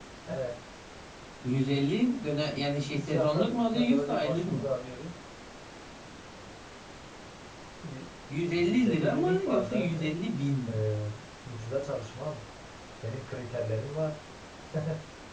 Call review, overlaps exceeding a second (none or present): present